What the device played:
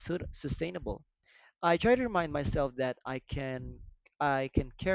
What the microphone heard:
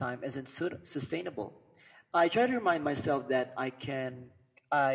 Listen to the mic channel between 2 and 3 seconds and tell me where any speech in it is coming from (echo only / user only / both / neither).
echo only